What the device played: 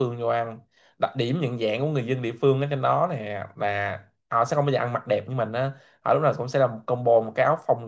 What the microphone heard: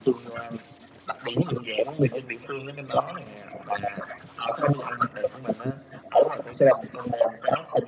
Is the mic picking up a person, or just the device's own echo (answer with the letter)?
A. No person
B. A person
A